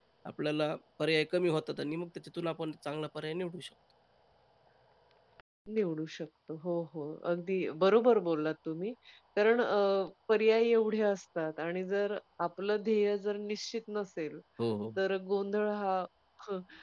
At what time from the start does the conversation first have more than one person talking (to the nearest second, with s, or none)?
none